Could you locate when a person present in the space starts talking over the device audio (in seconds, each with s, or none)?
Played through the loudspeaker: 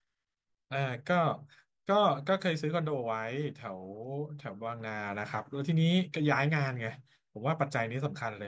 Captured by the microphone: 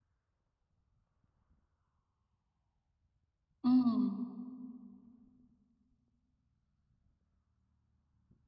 3.6 s